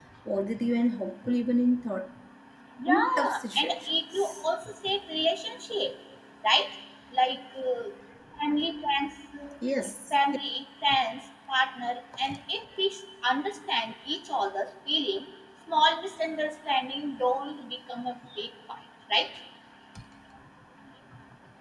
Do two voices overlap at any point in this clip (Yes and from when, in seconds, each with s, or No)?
Yes, from 2.9 s